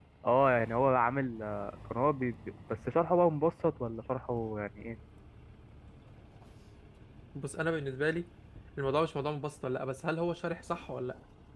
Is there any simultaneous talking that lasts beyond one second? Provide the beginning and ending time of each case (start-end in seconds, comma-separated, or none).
none